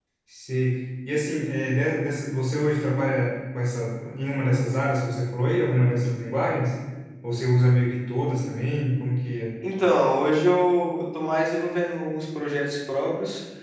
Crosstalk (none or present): none